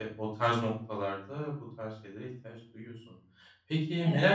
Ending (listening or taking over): listening